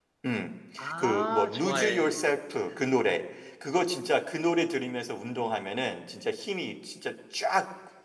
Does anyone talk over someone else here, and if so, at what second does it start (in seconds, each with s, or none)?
1.0 s